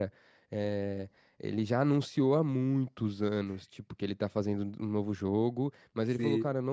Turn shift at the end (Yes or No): No